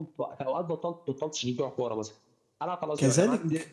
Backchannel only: No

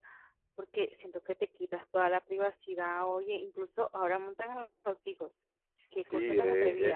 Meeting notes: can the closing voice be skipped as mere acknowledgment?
No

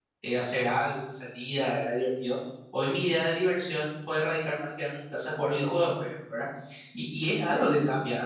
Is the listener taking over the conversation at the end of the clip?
No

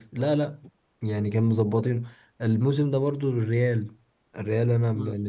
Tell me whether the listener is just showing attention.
No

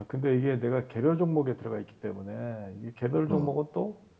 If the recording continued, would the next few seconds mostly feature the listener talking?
No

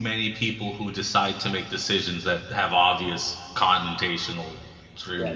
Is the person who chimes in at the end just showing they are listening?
No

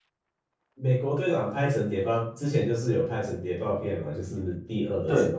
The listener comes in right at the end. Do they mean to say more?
Yes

